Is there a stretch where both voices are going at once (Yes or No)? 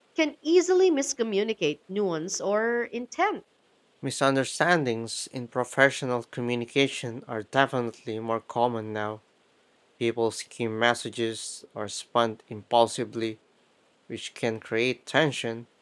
No